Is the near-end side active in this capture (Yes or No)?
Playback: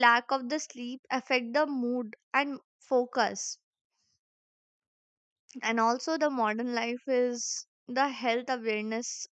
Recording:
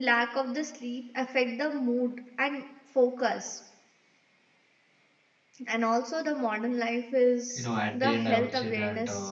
Yes